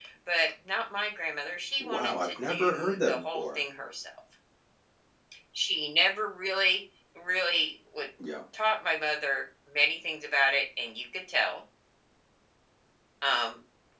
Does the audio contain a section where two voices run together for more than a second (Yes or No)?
Yes